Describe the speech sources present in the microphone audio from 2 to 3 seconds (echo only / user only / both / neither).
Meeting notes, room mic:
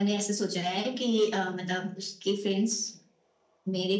echo only